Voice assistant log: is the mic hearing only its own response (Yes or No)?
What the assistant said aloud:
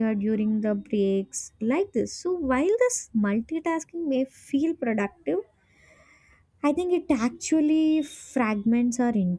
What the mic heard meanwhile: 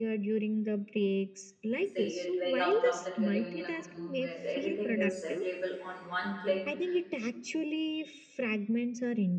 No